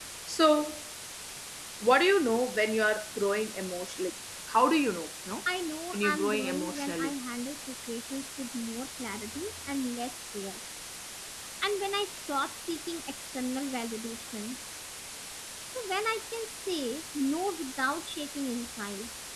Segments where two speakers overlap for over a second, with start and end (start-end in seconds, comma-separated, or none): 5.9-7.1